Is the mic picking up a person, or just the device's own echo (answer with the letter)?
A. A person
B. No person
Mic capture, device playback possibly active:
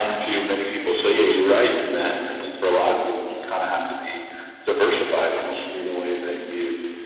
B